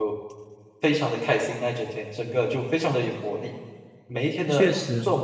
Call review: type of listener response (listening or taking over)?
listening